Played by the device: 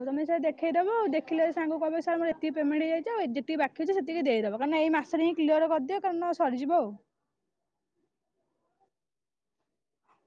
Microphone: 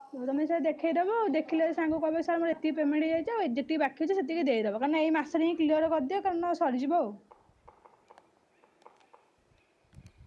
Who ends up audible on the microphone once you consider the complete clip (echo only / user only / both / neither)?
echo only